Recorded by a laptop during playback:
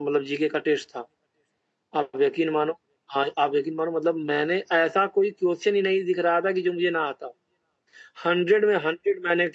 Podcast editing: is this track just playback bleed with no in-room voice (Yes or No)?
No